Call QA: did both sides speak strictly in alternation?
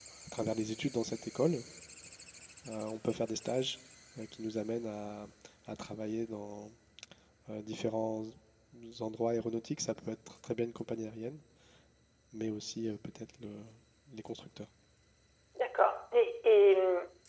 Yes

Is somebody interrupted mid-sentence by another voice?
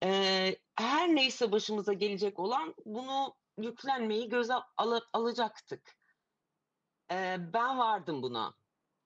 No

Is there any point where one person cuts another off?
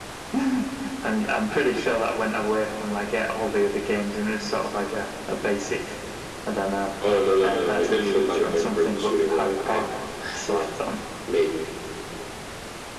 Yes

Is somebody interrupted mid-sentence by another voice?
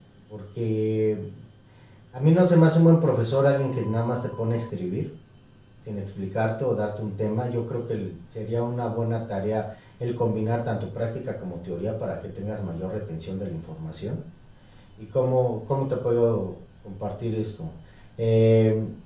No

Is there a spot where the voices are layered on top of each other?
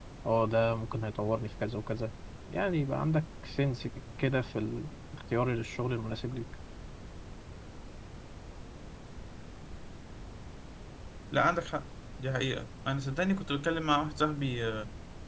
No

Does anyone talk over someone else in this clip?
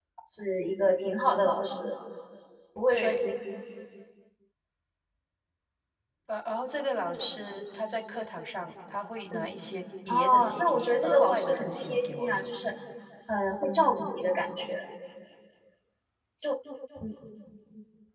Yes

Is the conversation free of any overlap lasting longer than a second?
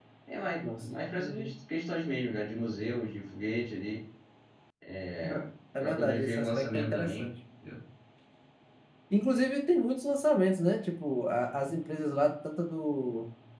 No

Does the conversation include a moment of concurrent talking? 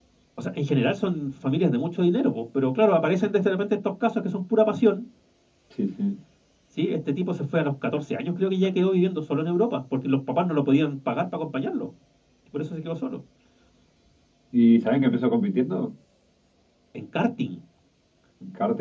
No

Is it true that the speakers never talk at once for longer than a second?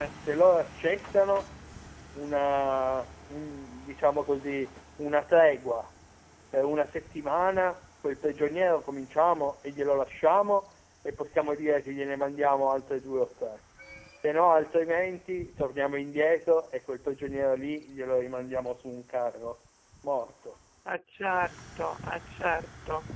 Yes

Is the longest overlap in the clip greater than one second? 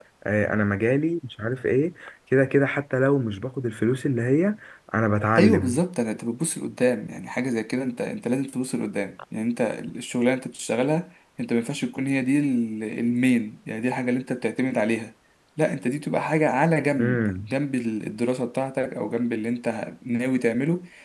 No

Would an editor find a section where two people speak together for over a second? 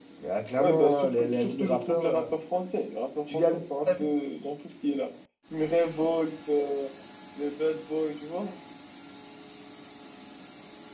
Yes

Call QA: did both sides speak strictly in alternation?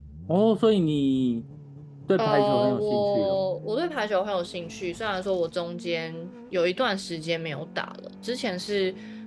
No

